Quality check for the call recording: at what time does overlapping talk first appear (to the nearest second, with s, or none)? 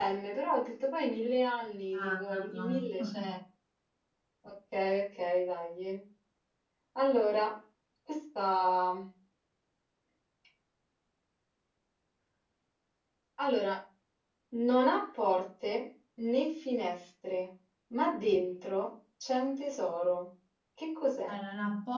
2 s